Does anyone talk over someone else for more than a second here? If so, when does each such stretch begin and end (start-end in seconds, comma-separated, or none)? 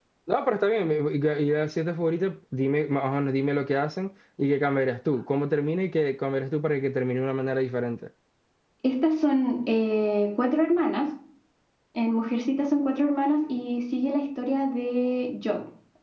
none